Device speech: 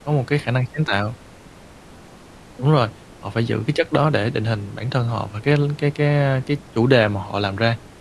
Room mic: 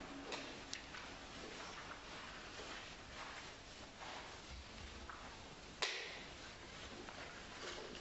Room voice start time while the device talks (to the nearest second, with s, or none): none